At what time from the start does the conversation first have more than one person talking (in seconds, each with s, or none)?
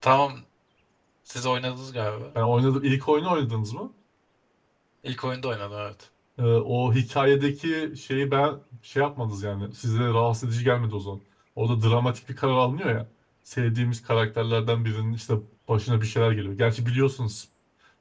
none